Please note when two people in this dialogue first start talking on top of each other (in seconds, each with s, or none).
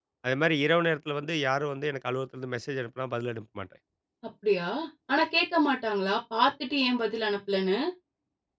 none